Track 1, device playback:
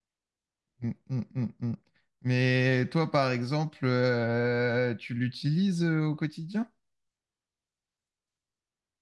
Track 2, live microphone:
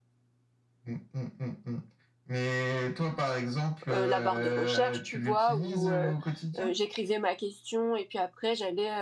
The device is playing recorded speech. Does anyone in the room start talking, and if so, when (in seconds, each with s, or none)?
3.9 s